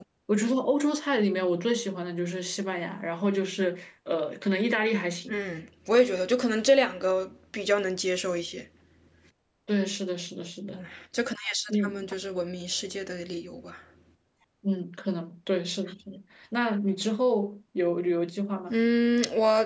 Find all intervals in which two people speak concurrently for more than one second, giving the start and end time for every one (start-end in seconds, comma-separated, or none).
none